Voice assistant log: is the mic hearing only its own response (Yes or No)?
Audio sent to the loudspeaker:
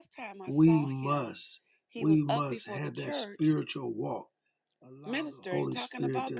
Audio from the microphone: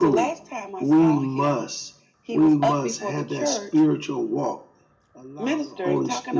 Yes